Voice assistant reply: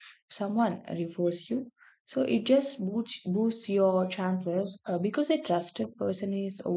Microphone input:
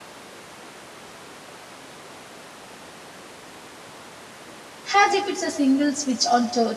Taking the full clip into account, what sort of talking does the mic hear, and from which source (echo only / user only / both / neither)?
user only